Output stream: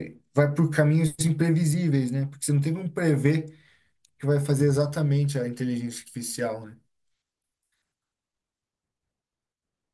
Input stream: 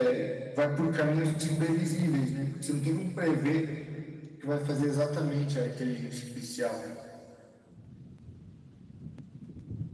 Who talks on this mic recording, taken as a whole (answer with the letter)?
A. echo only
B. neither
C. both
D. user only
A